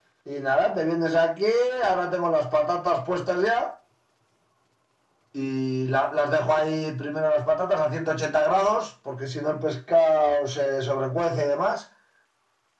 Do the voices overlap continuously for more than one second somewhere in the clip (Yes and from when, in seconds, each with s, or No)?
No